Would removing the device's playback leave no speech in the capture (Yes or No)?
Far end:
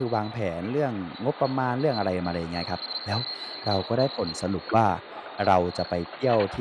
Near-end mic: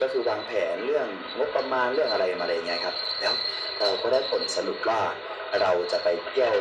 Yes